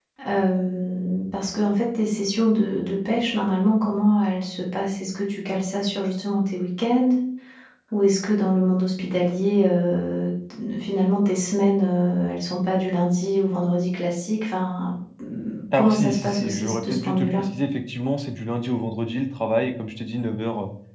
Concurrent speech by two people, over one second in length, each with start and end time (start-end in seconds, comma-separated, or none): 15.7-17.5